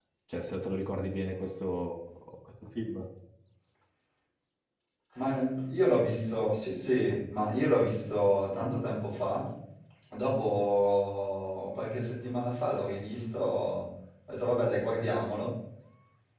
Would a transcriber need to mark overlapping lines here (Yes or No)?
No